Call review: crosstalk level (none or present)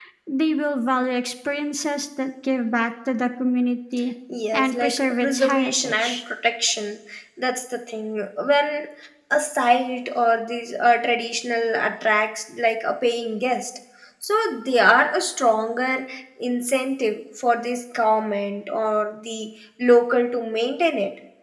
present